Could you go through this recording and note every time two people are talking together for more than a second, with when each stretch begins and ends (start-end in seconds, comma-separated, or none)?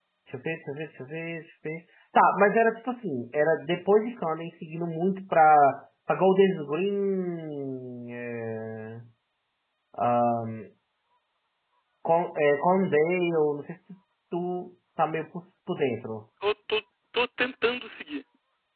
none